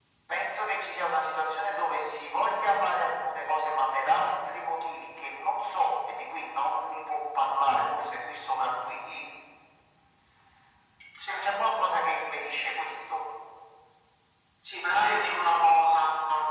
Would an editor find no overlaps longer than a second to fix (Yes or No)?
Yes